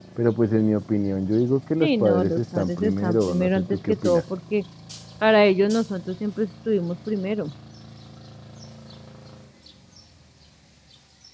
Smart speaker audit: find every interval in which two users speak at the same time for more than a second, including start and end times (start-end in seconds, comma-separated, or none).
1.8-4.2